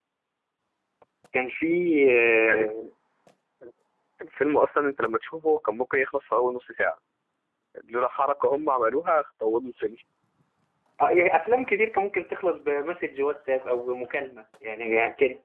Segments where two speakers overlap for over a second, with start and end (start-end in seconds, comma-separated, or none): none